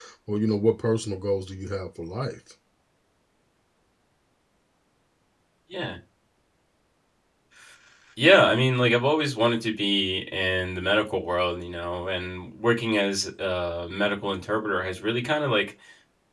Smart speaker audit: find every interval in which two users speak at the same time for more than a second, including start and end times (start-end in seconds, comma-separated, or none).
none